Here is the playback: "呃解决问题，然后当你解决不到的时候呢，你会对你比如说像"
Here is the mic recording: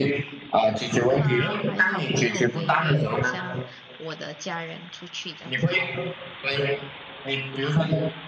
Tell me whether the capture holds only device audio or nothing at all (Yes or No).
No